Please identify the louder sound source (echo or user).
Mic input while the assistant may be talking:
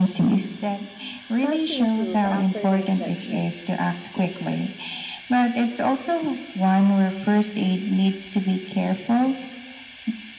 echo